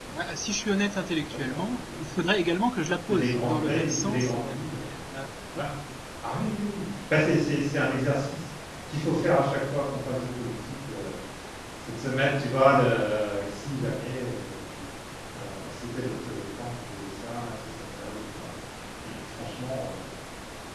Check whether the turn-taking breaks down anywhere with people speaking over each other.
Yes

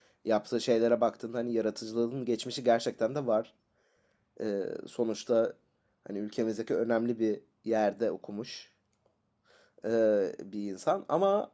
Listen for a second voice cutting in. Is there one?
No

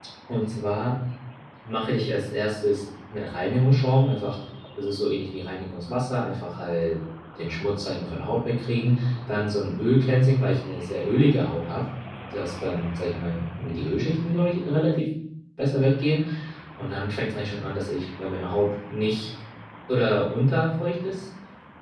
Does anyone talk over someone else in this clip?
No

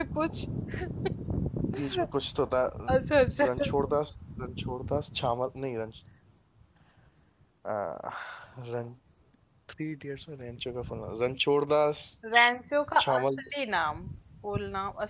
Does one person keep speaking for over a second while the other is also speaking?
No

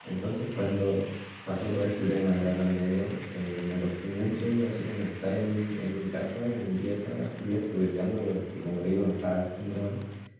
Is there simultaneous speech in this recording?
No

